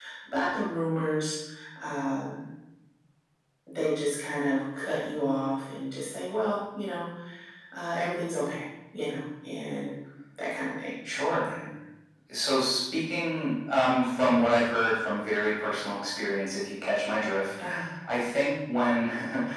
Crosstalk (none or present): none